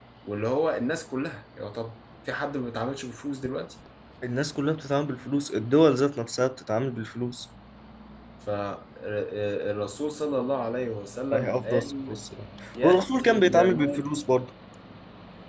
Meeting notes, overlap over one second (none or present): present